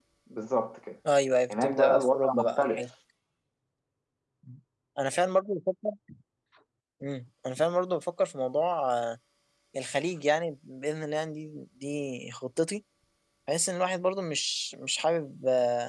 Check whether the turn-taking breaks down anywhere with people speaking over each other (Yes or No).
Yes